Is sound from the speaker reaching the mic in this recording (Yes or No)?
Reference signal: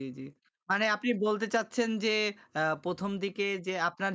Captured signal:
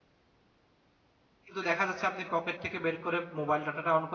No